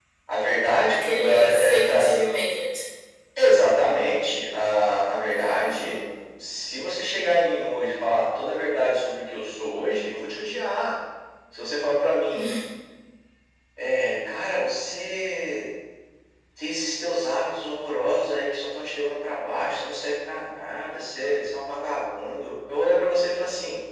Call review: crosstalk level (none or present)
present